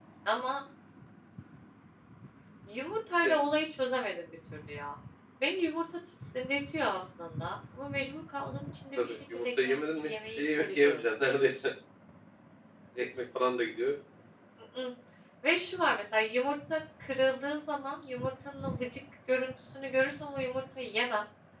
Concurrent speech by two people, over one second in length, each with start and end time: 9.0-11.0

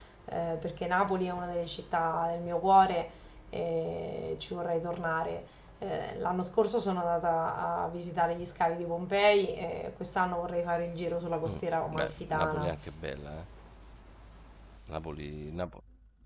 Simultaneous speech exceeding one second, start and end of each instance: 11.4-12.7

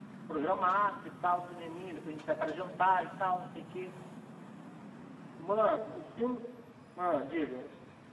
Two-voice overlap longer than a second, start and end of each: none

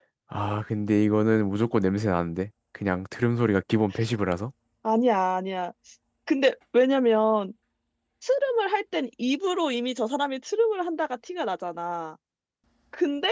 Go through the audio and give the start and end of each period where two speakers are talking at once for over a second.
none

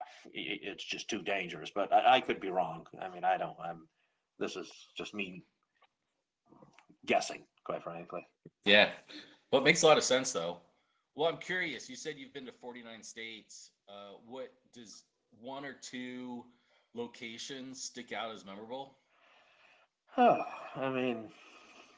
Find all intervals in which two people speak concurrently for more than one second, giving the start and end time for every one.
none

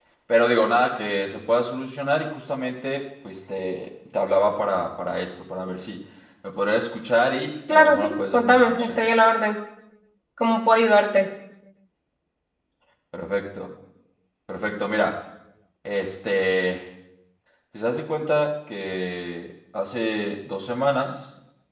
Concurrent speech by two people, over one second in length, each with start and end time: 7.7-9.1

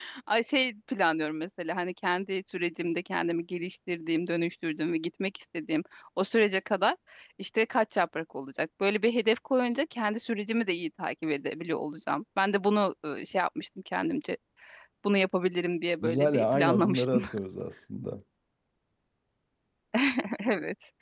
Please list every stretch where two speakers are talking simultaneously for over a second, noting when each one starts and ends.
16.0-17.2

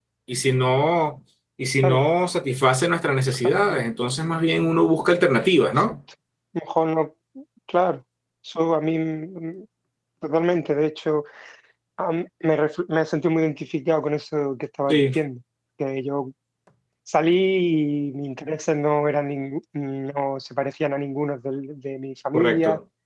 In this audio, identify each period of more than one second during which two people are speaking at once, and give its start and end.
none

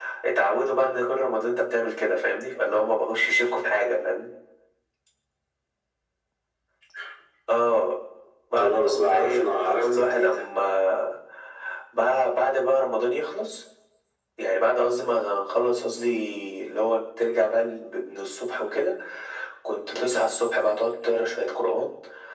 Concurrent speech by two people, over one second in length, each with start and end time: 8.6-10.5

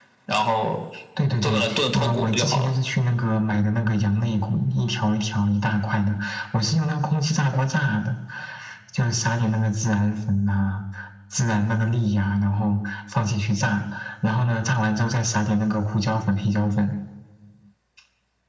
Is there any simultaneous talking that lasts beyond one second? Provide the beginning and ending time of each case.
1.4-2.7

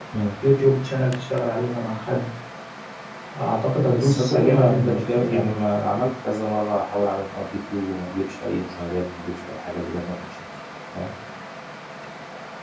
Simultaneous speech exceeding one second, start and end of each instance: 3.8-5.5

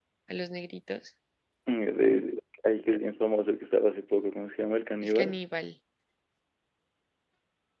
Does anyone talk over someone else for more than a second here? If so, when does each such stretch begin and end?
none

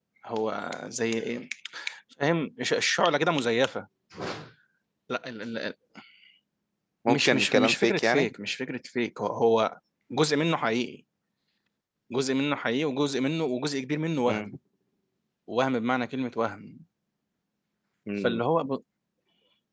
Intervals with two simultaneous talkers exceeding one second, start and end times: 7.1-8.3

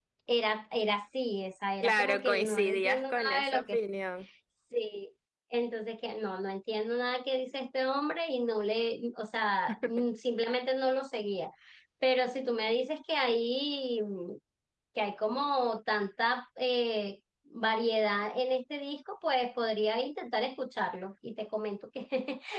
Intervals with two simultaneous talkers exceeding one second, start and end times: 1.8-3.8

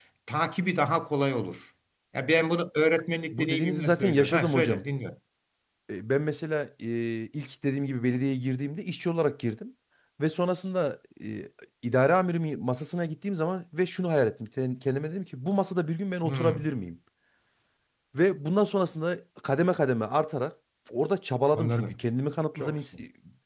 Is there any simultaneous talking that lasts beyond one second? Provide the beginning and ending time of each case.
3.3-4.8

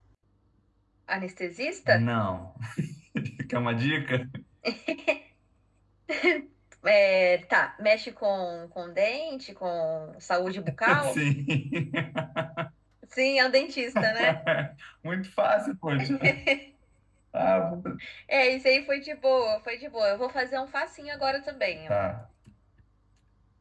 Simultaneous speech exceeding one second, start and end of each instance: none

